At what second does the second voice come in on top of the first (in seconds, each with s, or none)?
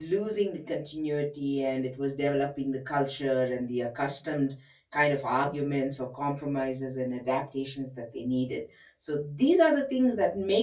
none